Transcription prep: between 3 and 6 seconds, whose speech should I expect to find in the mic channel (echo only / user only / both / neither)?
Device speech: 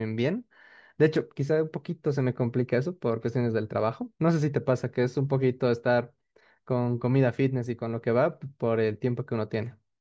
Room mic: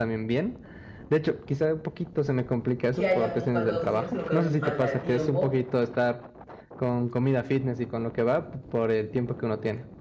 both